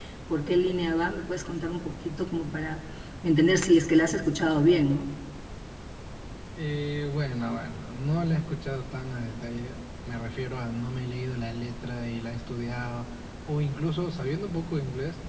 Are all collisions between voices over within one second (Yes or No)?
Yes